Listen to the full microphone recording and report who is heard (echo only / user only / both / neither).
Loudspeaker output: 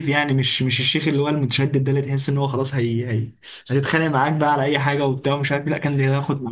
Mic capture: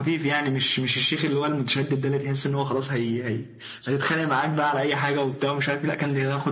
echo only